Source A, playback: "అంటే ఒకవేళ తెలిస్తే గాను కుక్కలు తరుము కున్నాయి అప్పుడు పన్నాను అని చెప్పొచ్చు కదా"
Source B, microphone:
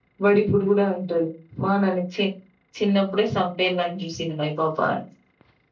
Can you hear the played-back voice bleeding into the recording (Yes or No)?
No